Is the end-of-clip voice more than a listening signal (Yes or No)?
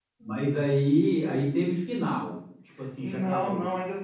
Yes